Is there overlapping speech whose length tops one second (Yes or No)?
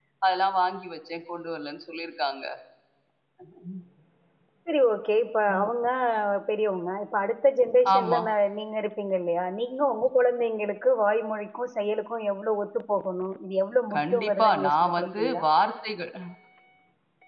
Yes